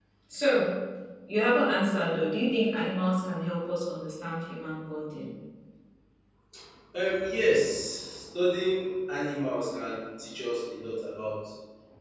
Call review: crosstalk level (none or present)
none